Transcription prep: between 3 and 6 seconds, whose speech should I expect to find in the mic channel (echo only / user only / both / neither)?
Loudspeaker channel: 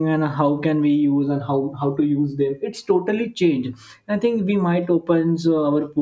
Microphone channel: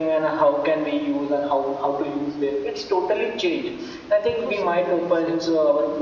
both